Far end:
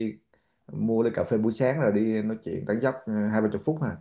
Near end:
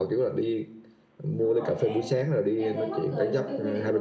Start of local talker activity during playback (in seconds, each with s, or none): 1.3 s